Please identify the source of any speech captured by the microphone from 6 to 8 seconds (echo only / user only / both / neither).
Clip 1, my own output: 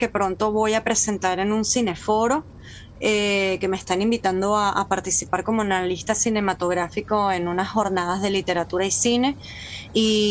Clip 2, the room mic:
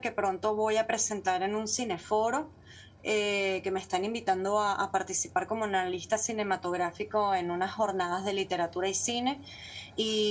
echo only